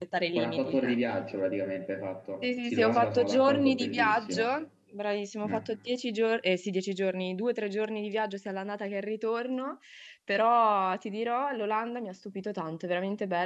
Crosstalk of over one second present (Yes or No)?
Yes